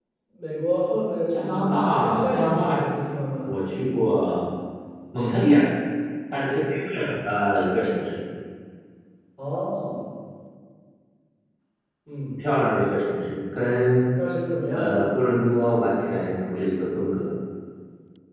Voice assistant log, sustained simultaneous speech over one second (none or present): present